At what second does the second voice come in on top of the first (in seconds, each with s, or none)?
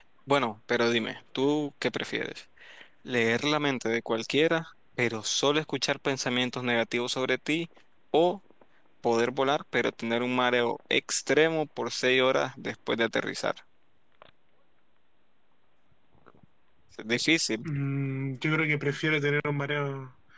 none